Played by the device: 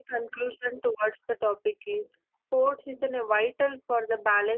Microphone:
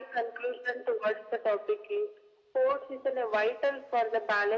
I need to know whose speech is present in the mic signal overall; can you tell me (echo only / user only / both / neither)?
echo only